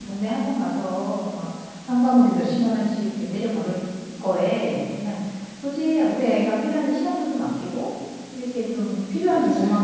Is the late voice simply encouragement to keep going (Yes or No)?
Yes